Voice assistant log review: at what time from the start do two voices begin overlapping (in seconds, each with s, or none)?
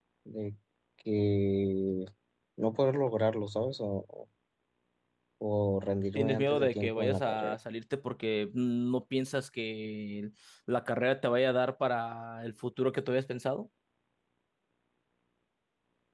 6.2 s